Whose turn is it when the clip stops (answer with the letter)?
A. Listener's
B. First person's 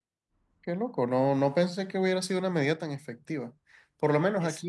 B